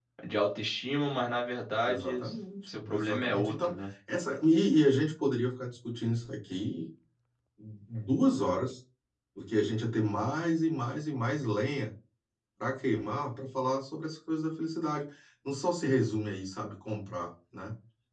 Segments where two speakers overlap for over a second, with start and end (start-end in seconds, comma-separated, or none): 2.7-3.9